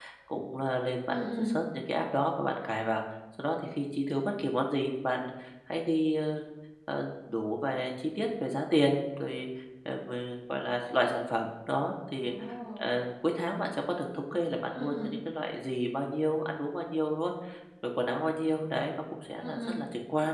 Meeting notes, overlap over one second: none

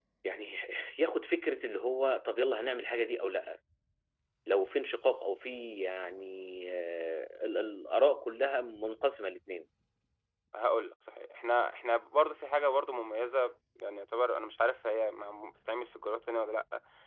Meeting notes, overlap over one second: none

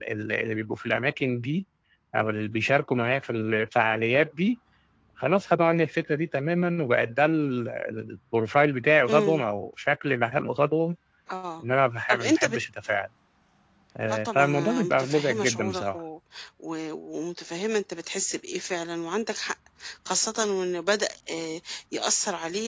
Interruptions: present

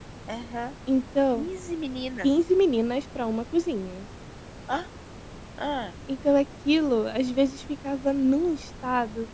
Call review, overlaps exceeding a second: none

